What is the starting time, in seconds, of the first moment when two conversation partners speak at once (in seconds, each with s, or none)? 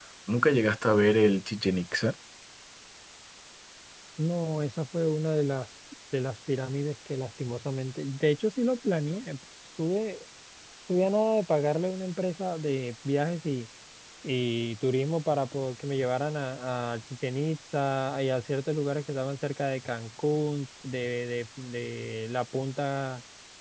none